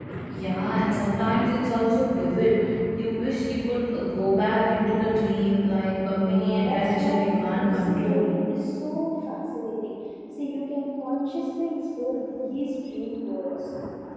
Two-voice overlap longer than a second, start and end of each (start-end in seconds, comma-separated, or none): 6.2-8.3